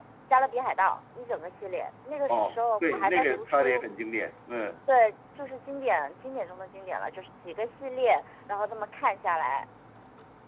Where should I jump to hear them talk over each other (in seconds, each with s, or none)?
2.3 s